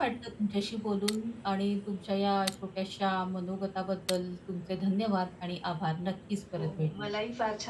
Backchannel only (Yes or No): No